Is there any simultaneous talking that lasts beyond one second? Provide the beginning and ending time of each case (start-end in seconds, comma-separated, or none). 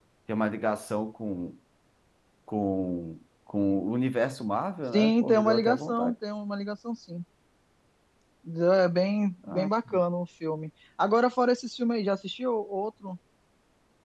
4.9-6.1